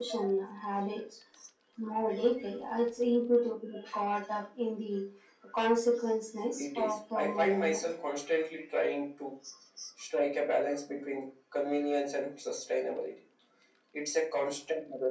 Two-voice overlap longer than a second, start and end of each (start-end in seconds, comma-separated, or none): 6.6-7.9